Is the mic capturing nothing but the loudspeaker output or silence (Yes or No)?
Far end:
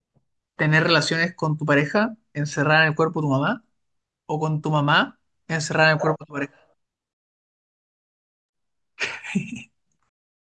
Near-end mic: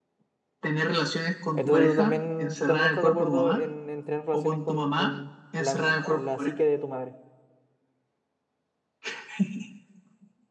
No